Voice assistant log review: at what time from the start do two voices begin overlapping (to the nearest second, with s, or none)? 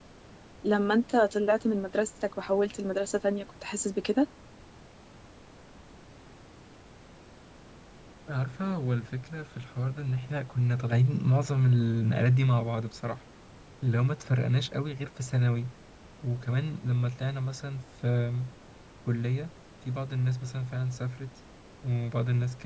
none